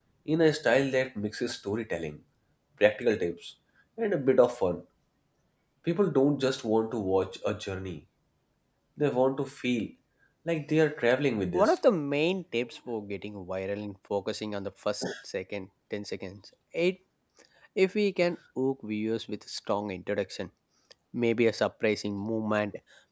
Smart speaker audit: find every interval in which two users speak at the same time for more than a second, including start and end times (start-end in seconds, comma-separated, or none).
none